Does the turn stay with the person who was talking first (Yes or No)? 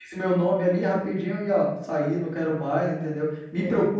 Yes